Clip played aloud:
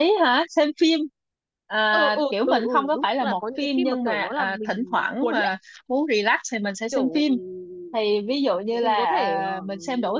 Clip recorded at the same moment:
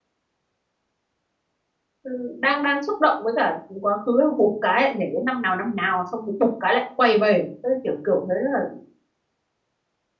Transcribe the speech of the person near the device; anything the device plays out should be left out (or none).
Ừ, đang đang xúc động với cả quá khứ bục cái lại nhảy đến năm nào năm nào xong bục bục cái lại quay về Thế kiểu kiểu thế là